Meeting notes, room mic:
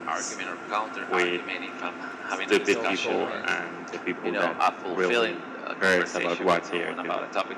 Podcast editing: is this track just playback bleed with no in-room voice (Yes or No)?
No